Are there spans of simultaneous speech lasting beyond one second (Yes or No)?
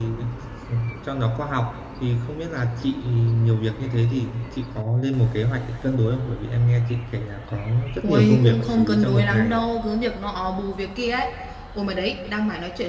Yes